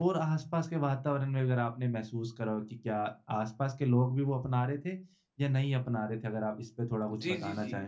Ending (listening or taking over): taking over